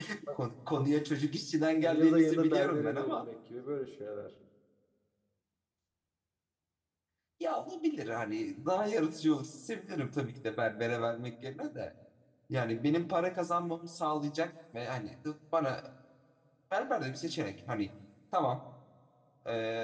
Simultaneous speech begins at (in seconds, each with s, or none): 1.8 s